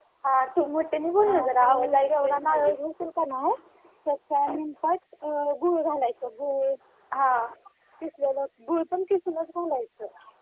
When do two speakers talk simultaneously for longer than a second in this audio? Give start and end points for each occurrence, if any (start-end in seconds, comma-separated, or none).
1.2-2.8